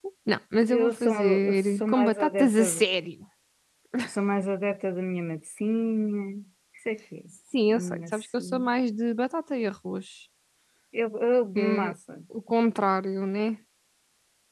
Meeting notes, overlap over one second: present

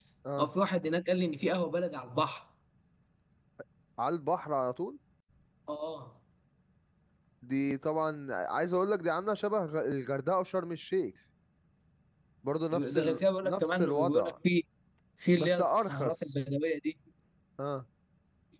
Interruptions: present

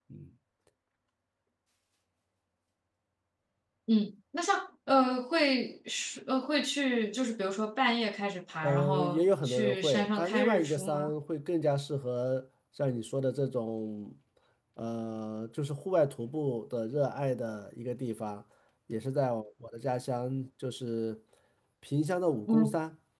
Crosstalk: present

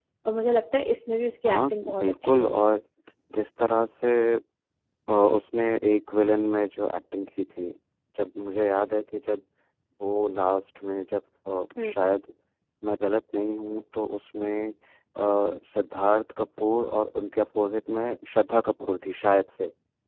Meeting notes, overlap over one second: present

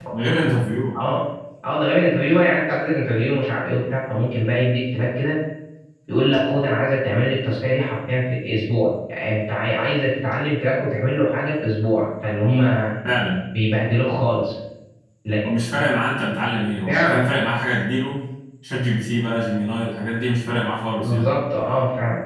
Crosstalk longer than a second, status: none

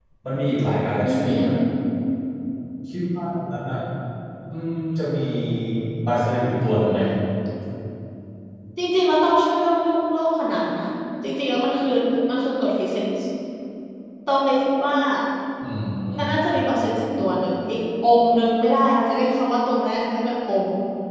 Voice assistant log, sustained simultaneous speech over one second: none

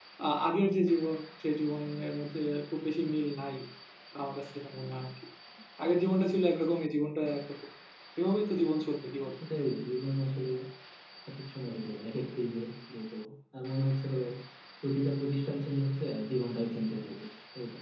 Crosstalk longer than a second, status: none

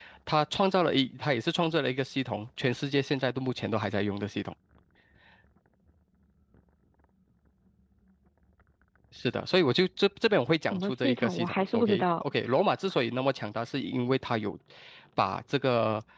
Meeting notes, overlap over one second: present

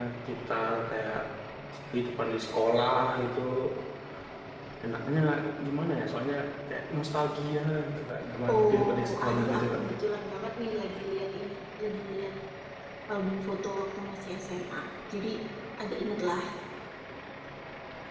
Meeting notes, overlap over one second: present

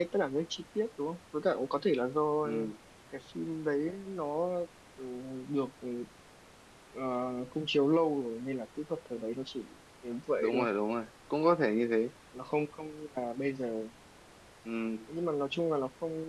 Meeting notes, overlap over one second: none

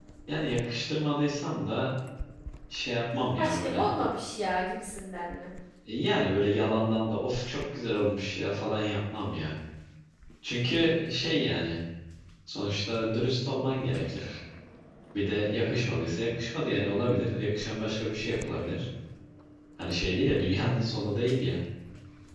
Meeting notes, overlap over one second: none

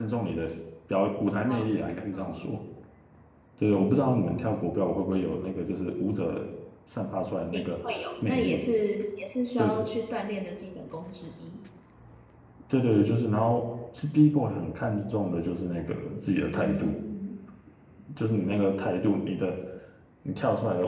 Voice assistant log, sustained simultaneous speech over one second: none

